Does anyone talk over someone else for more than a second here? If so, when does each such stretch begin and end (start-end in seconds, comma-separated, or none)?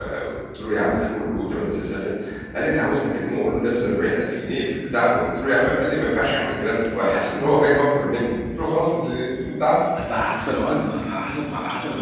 none